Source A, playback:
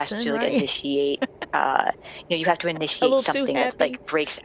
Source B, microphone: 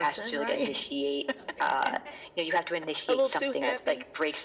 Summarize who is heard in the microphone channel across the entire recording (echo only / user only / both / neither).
both